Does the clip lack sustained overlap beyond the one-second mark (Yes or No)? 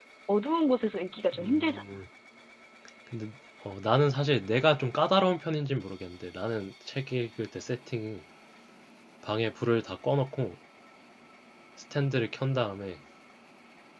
Yes